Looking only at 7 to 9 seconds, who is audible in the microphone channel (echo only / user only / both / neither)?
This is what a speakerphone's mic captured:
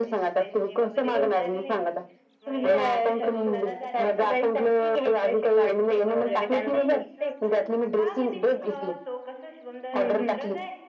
both